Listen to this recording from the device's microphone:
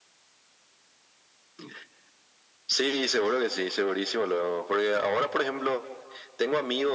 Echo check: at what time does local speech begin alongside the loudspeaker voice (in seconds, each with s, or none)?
none